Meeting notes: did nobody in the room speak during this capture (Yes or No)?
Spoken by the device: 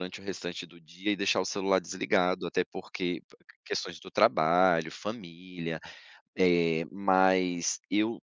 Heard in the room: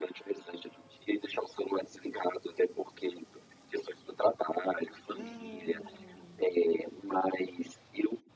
No